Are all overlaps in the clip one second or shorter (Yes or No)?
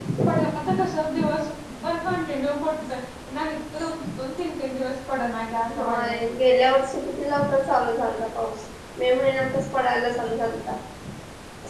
Yes